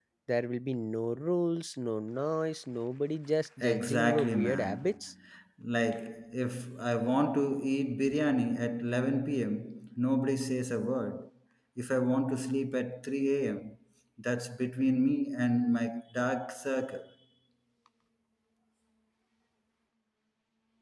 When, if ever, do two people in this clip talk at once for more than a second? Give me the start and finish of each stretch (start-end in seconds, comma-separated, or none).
3.6-4.9